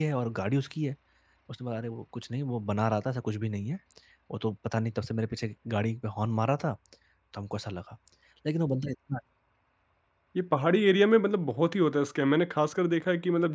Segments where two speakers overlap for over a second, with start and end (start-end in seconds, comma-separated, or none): none